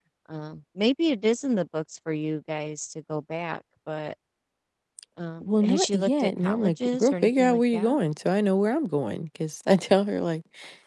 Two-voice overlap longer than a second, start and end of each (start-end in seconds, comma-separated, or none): 5.4-8.0